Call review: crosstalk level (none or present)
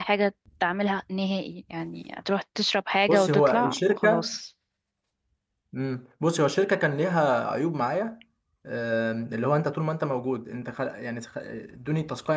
present